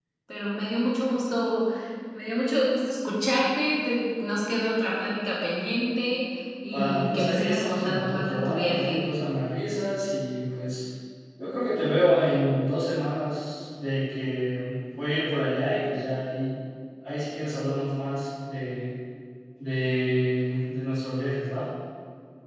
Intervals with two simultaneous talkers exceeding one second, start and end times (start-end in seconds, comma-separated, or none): 6.7-9.0